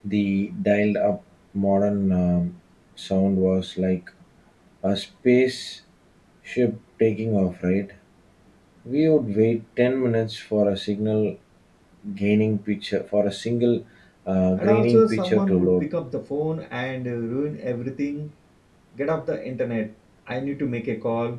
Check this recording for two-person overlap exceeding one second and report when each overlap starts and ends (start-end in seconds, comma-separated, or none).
14.6-15.8